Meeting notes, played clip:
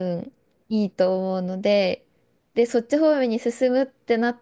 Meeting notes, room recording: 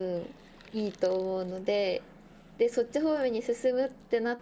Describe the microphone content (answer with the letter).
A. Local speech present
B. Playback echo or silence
B